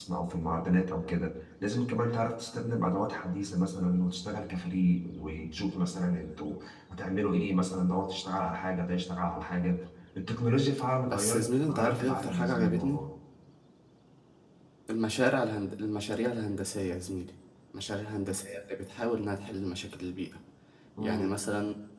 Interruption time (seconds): 11.1 s

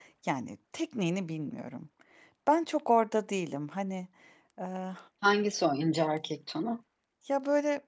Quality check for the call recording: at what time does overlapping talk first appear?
none

